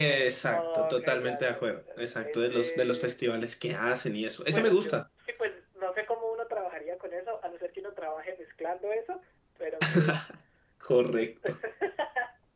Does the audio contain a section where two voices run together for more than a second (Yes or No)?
Yes